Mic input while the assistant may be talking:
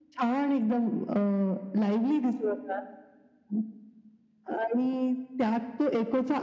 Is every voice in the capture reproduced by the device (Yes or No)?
Yes